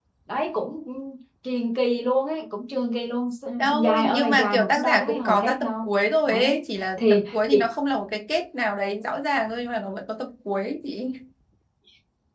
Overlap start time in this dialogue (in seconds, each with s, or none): 3.6 s